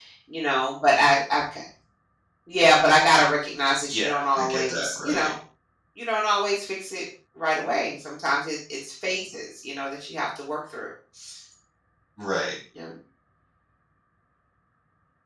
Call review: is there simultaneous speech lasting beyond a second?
Yes, from 3.9 s

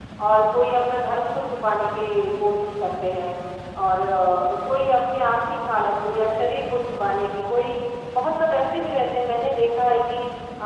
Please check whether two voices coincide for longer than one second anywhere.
No

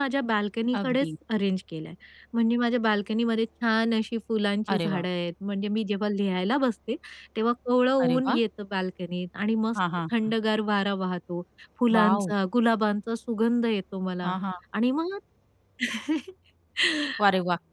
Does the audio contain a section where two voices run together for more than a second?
No

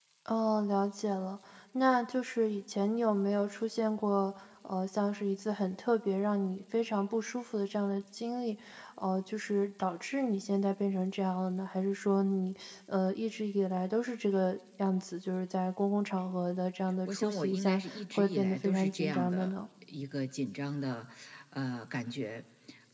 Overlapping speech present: Yes, from 17.1 s

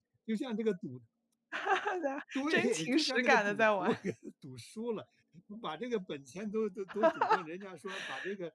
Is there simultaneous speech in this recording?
Yes, from 2.3 s

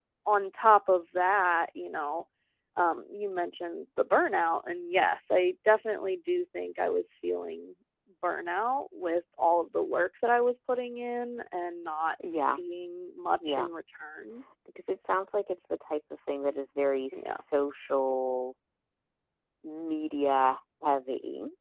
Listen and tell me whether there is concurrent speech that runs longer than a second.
No

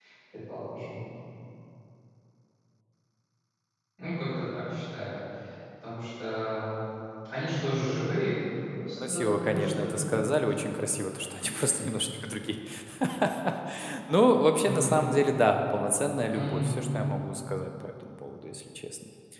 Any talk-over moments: Yes, from 9.1 s

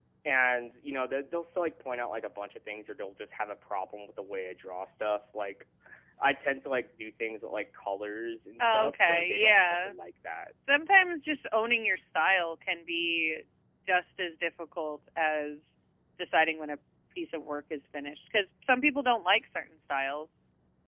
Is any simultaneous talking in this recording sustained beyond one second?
Yes, from 8.6 s

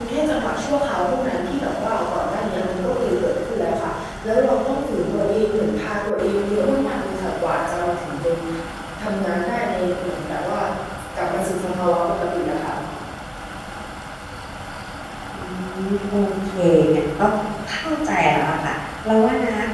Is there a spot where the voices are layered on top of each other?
No

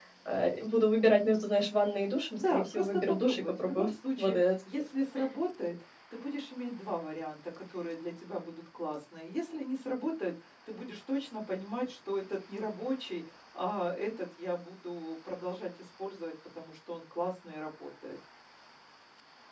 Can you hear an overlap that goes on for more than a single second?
Yes, from 2.4 s

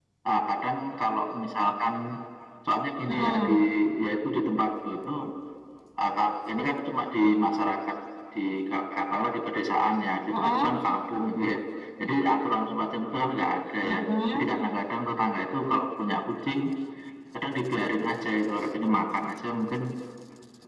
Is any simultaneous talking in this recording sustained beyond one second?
No

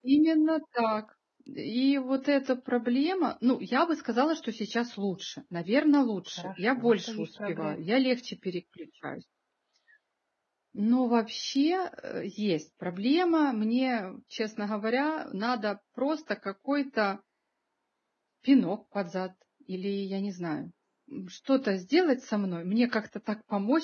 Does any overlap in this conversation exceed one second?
Yes, from 6.4 s

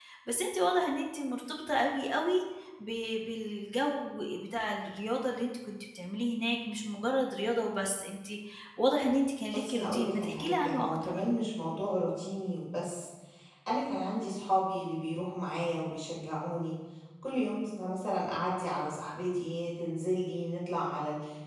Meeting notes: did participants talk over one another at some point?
Yes, from 9.5 s

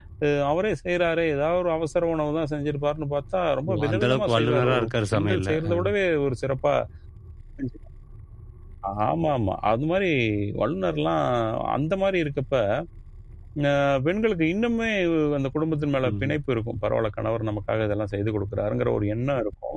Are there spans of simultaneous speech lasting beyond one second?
Yes, from 3.7 s

